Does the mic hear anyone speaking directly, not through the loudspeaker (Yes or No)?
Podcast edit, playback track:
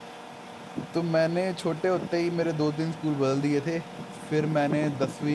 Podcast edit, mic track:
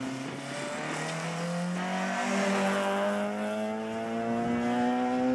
No